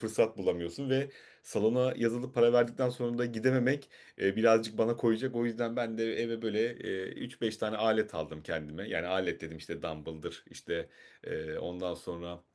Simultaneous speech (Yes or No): No